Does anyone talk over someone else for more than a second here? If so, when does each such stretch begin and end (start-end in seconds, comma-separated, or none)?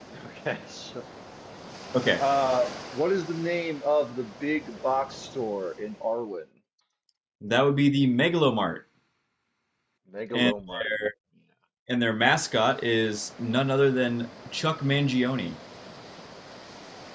none